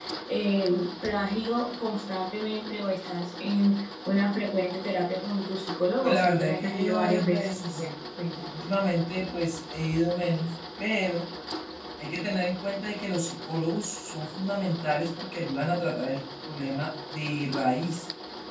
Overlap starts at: 6.0 s

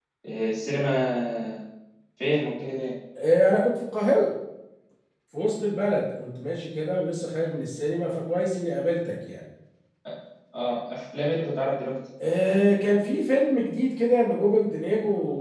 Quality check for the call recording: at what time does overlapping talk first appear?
none

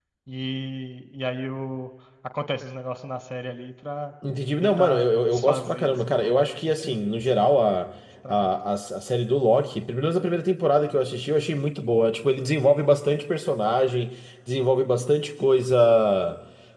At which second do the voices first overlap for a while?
4.6 s

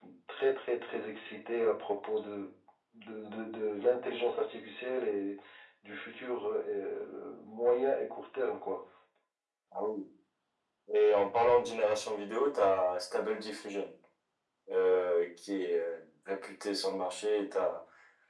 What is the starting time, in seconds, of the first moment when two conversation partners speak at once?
none

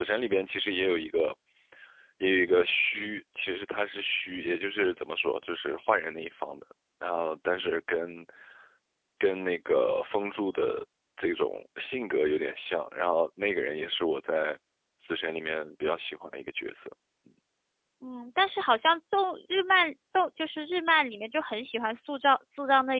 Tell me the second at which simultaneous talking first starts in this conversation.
none

